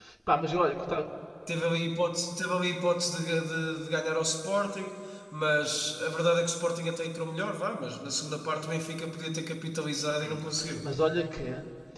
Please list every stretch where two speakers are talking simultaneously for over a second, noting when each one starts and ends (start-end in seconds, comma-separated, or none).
none